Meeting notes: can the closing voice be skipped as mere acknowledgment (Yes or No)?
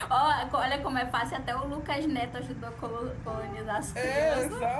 No